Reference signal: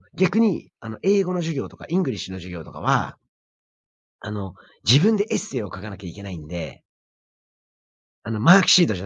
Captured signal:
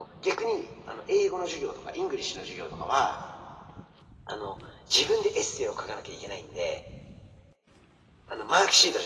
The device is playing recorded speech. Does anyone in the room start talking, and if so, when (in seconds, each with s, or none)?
none